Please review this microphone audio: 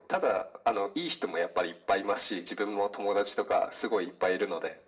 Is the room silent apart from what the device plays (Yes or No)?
Yes